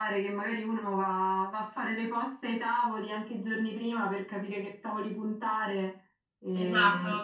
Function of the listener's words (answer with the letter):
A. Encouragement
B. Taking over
B